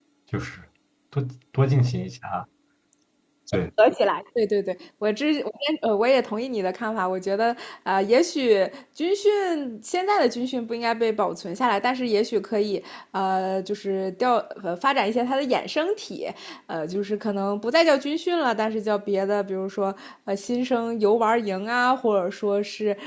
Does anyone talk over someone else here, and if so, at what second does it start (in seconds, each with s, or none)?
none